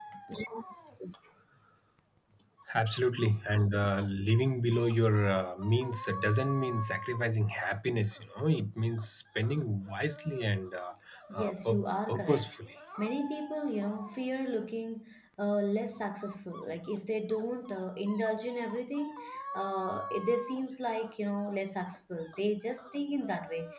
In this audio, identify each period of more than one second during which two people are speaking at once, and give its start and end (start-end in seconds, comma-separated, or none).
11.3-12.5